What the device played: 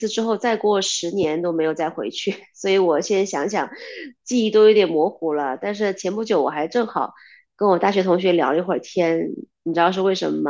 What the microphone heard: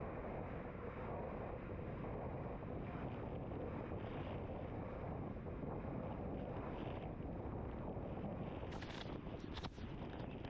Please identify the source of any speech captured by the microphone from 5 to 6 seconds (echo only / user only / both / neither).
neither